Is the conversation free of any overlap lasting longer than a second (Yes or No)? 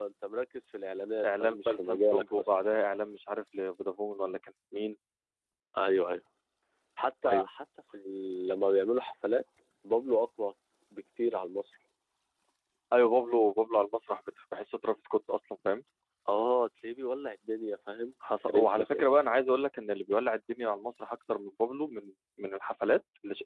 No